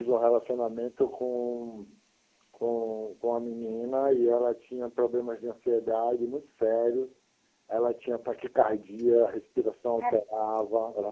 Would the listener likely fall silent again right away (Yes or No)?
Yes